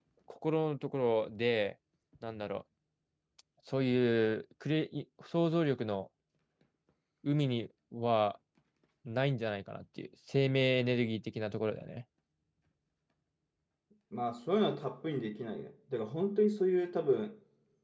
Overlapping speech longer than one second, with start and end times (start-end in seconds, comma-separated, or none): none